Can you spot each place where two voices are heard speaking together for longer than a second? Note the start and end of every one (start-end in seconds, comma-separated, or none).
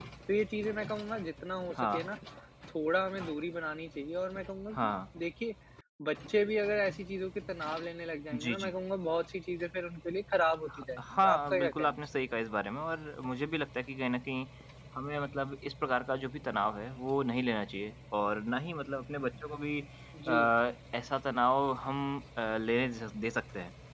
10.7-12.0